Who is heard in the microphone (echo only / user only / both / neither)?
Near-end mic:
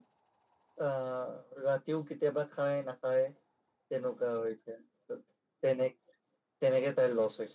echo only